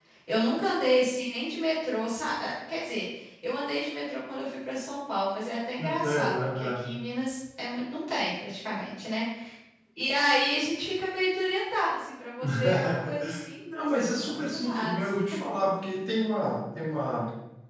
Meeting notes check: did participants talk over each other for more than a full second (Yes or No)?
Yes